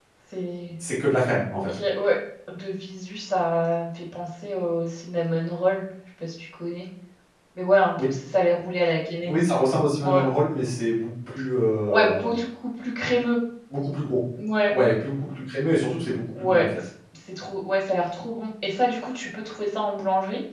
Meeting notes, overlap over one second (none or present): none